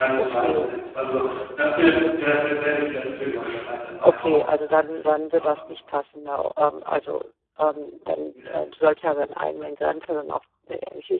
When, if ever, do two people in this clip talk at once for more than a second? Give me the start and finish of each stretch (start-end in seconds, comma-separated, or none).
none